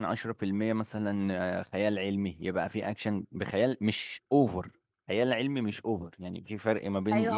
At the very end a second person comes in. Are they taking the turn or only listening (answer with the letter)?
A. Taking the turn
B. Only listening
A